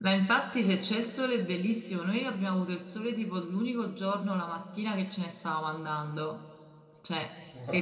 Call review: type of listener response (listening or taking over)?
listening